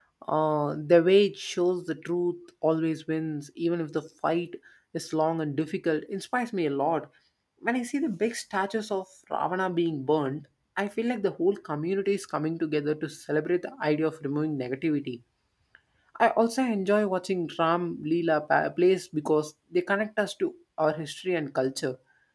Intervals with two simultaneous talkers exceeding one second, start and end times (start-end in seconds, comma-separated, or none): none